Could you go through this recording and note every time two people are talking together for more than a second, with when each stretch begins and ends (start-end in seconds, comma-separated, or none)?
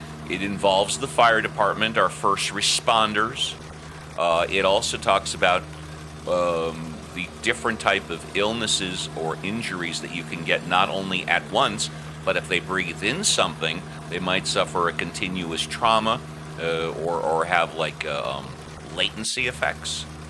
none